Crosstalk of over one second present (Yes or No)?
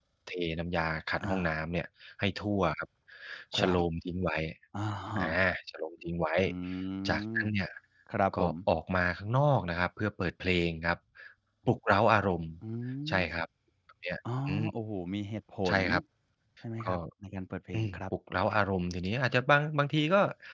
No